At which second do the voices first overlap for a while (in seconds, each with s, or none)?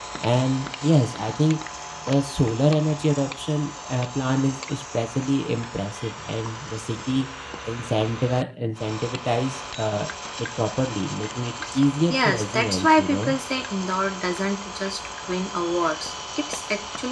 12.1 s